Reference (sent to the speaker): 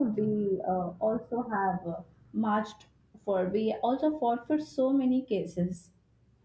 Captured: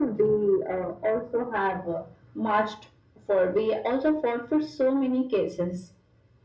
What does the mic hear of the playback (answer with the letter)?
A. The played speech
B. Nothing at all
A